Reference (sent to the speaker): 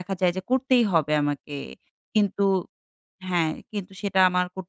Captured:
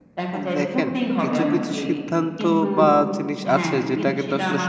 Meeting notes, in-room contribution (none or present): present